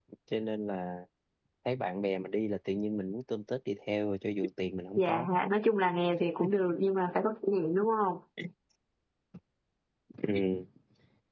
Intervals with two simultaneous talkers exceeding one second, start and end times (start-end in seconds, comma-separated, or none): none